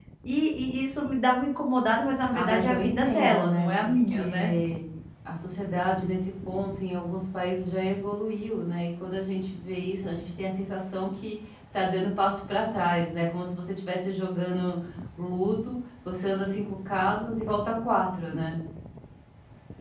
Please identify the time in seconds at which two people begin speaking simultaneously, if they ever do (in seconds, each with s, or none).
2.3 s